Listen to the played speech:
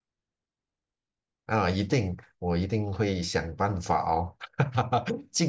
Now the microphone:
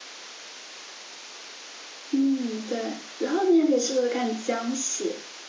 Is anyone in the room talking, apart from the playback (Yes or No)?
Yes